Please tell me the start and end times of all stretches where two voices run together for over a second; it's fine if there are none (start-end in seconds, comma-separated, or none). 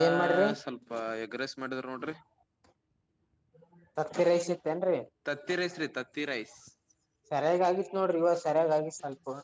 none